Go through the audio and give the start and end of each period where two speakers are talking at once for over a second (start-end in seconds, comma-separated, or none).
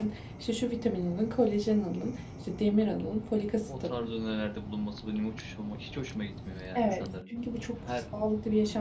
6.8-8.0